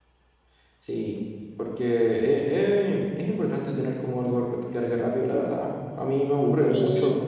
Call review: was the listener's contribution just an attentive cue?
Yes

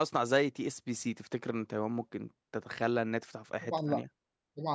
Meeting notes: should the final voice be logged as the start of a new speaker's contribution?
Yes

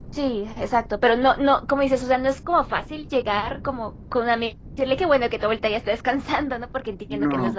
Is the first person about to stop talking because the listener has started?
Yes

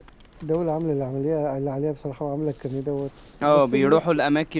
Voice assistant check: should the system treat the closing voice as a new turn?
Yes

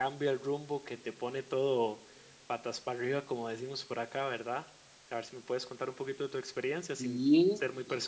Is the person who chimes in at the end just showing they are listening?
No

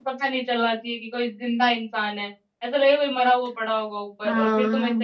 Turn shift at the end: No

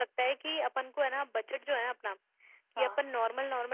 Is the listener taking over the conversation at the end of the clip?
No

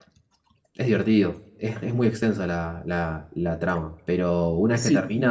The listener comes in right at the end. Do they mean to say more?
Yes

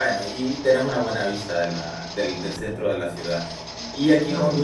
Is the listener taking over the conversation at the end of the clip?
No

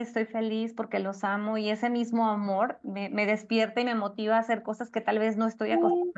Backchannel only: Yes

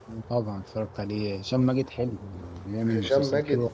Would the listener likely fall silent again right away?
No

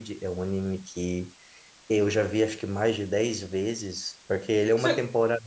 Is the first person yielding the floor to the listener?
No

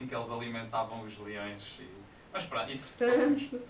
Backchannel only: Yes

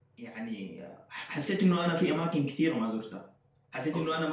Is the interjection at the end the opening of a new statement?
No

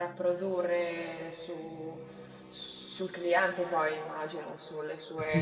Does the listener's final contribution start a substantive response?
Yes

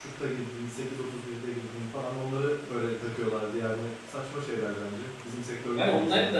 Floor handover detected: Yes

